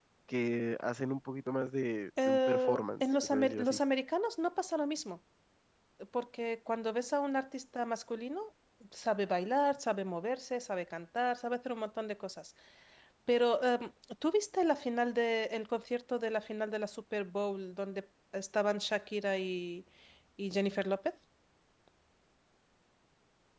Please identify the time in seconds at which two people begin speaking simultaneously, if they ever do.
2 s

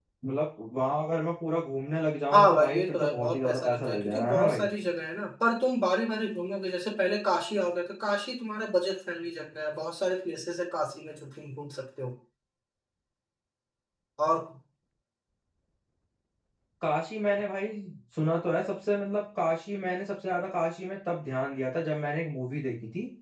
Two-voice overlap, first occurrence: 2 s

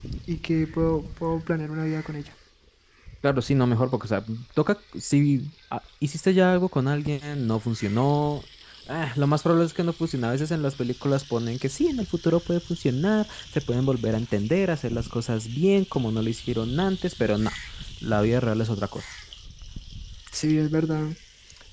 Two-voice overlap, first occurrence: none

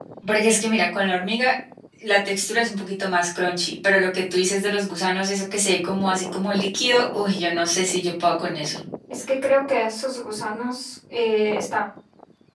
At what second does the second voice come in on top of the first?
none

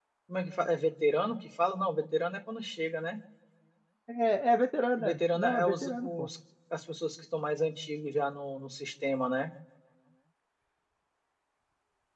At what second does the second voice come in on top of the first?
5 s

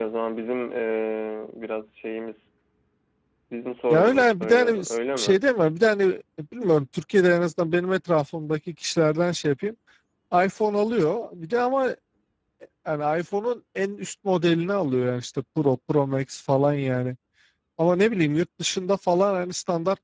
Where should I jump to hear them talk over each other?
4 s

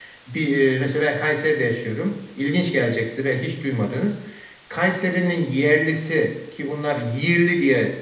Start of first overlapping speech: none

